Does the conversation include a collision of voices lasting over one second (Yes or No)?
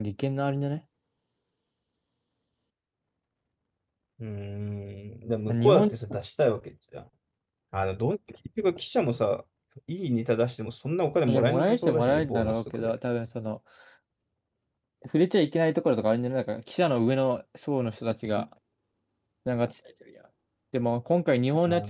Yes